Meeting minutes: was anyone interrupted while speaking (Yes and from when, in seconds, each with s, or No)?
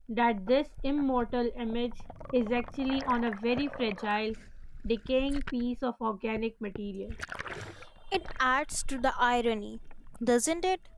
No